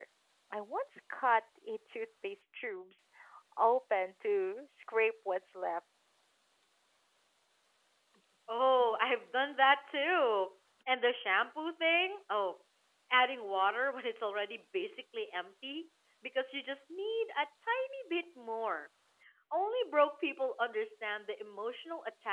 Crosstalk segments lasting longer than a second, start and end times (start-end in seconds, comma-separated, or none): none